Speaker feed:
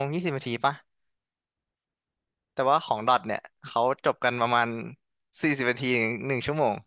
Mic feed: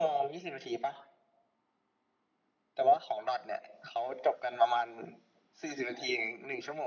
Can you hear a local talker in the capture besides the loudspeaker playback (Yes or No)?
No